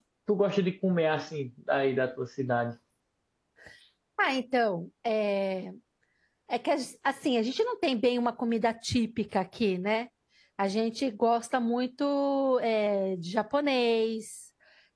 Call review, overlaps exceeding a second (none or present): none